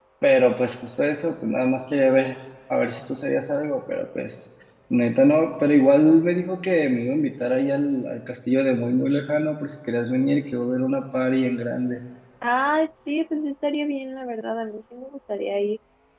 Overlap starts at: none

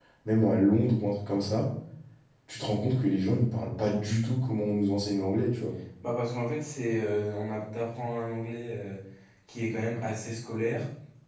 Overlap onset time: none

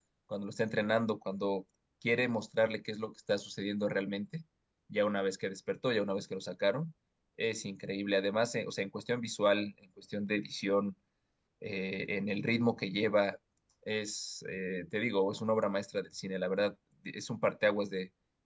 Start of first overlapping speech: none

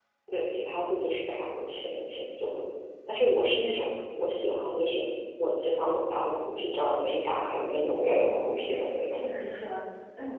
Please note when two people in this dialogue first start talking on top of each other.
8.1 s

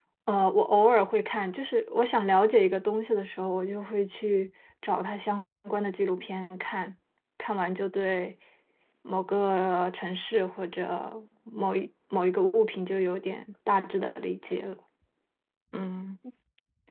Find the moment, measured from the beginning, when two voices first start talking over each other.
none

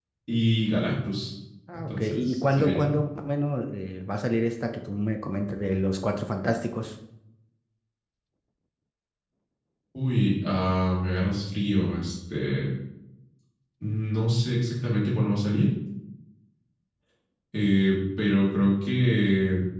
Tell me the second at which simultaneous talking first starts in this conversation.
1.7 s

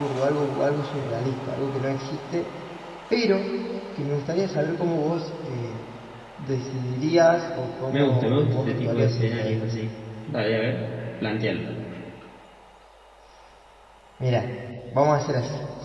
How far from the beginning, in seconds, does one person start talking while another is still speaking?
7.9 s

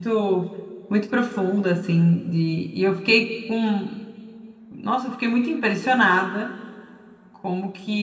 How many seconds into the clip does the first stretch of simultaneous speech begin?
none

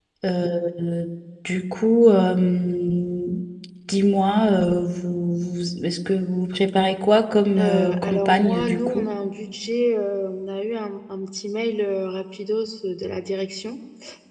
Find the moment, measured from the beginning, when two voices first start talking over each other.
7.6 s

